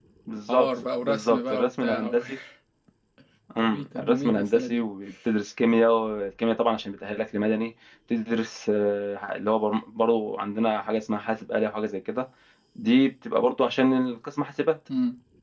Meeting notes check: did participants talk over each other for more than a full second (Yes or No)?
Yes